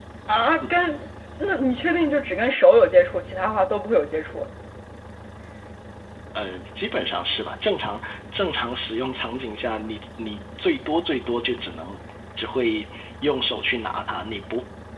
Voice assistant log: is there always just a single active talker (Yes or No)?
Yes